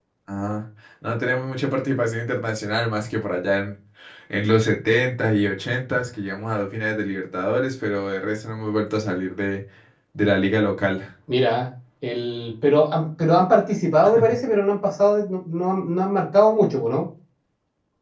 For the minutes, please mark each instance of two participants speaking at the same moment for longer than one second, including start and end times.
none

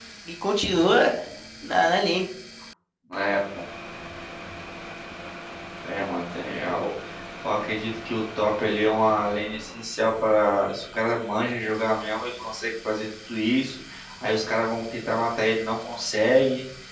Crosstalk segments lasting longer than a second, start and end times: none

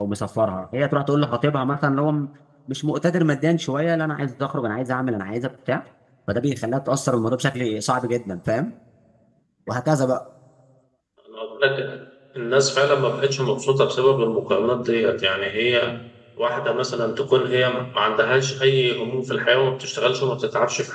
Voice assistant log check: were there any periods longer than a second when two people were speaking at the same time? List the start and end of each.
none

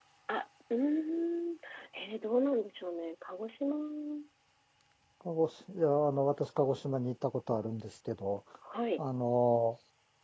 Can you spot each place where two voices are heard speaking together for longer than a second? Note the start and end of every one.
none

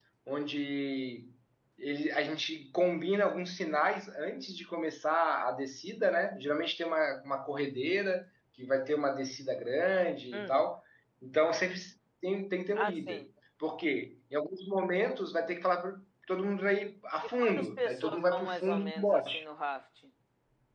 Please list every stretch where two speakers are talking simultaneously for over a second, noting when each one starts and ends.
17.4-19.4

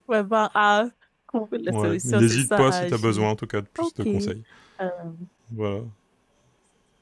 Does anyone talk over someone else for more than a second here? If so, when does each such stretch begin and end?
1.7-3.3

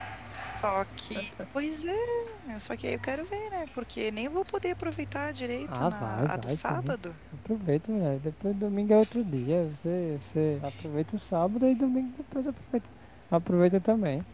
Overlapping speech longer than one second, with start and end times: 5.7-7.0

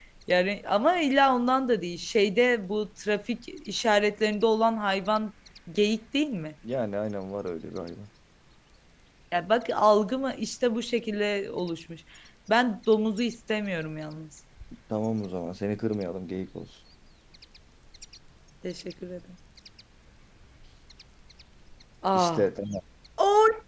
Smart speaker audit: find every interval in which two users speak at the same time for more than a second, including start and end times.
none

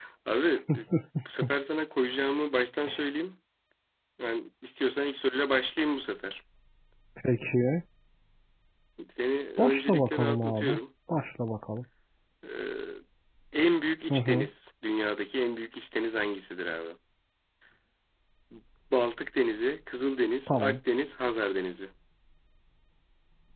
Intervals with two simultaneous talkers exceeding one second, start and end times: 9.6-10.8

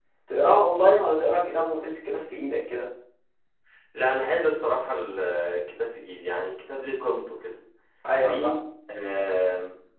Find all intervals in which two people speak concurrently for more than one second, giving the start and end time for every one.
none

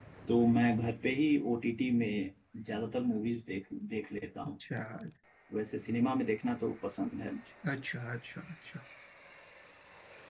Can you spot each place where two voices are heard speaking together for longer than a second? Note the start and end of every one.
none

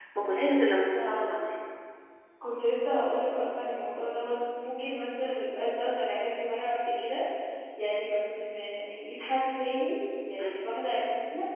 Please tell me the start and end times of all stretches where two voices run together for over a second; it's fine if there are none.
none

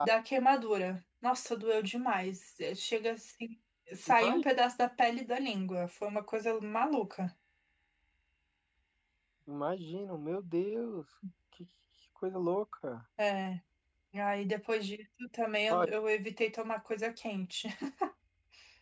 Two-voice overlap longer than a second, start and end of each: none

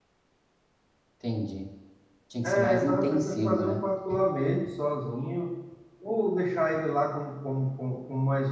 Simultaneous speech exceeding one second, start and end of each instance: 2.4-3.8

